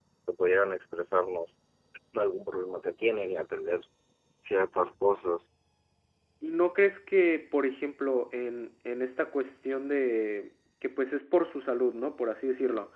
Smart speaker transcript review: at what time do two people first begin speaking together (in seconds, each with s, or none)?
none